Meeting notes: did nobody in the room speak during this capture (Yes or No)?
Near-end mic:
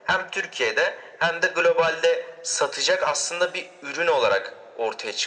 Yes